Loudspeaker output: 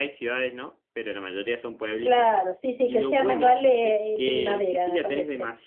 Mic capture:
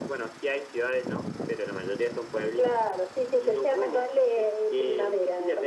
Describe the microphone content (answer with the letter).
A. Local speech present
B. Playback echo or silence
B